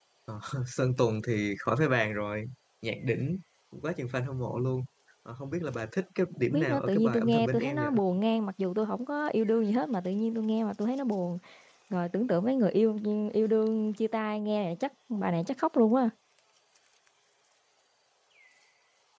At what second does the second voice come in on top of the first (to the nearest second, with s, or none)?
6 s